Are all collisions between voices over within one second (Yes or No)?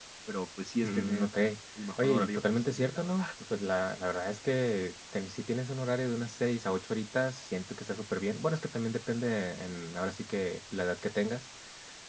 No